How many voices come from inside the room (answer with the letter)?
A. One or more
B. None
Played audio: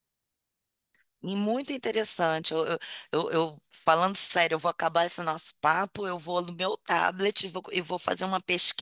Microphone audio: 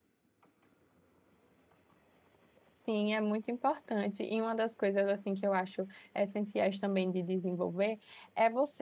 A